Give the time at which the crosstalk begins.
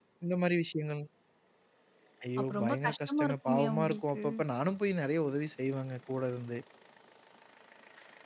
2.4 s

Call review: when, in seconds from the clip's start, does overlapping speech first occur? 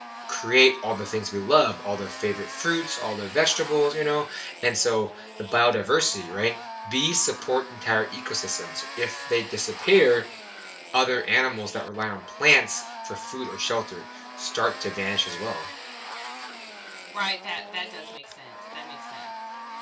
none

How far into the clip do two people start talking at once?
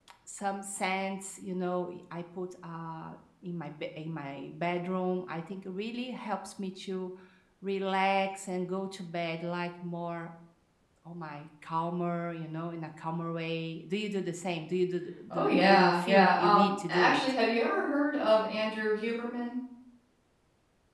15.3 s

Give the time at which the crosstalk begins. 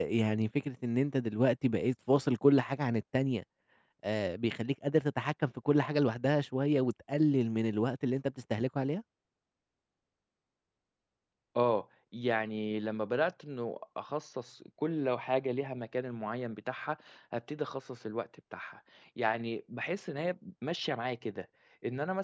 none

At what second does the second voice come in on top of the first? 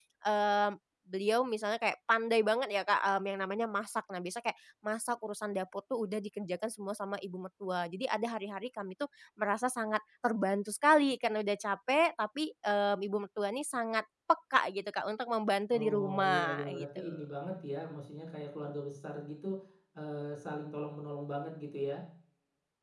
15.7 s

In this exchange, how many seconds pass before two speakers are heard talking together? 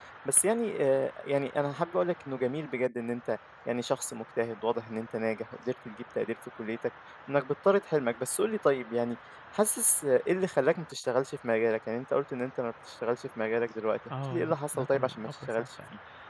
14.1 s

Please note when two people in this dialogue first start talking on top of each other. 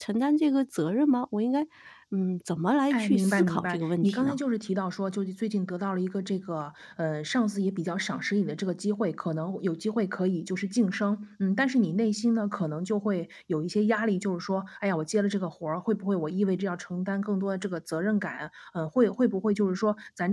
2.9 s

